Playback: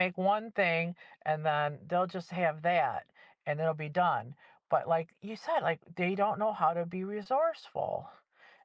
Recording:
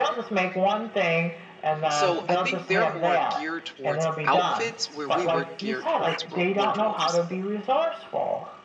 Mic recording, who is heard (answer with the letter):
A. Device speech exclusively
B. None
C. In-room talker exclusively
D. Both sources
D